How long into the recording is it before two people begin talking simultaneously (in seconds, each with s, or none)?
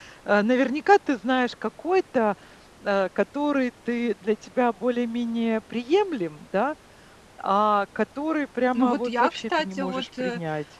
8.7 s